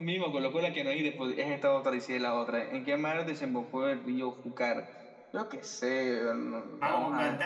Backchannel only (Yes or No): No